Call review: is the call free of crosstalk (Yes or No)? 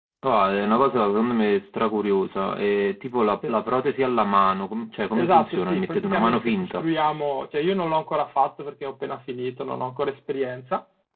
No